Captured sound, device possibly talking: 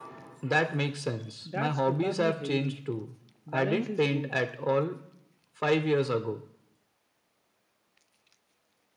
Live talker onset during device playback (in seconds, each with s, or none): 1.5 s